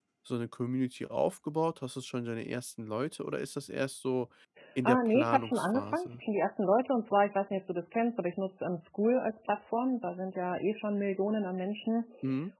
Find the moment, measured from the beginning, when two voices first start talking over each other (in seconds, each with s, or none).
4.8 s